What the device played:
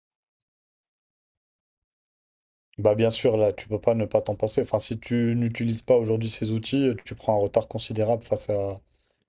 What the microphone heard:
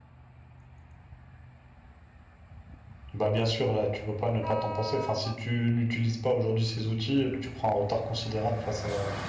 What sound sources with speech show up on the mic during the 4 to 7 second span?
echo only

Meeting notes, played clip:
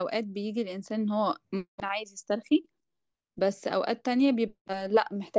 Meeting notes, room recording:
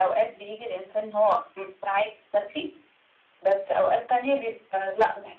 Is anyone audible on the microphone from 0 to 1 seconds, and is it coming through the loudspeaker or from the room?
echo only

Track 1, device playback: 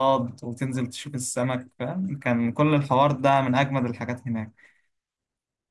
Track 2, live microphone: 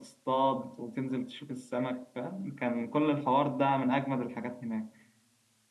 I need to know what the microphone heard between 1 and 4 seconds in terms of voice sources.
echo only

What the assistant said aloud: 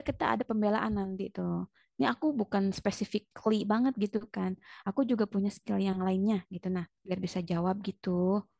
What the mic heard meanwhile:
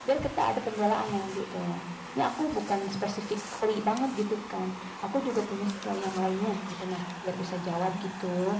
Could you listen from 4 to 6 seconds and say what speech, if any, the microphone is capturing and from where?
echo only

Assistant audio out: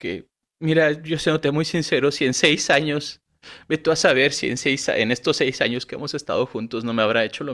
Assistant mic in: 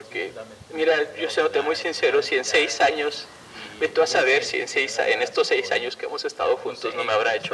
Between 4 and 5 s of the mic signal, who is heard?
both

